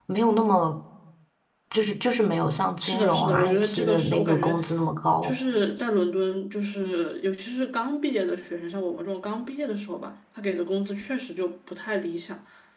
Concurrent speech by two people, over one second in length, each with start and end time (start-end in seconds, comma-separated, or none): 2.8-4.6